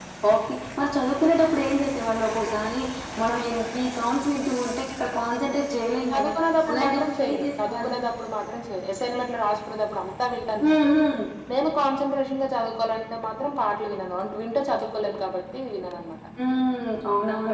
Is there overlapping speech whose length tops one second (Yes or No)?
Yes